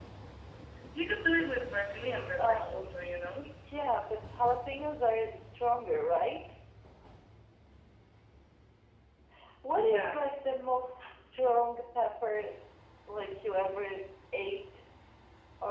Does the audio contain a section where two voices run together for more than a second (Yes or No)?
No